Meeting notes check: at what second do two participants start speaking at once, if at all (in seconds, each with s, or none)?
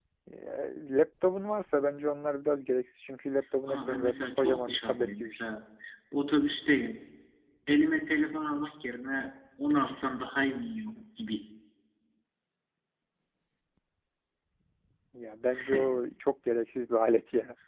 3.7 s